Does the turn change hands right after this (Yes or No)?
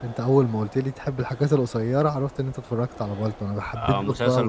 Yes